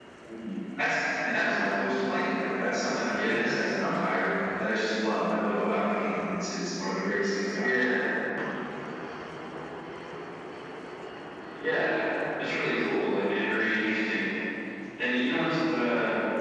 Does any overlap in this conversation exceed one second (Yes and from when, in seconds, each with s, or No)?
No